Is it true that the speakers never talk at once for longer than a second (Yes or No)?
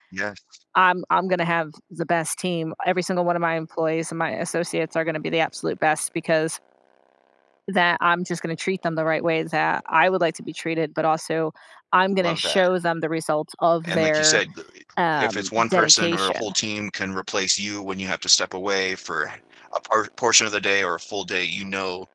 No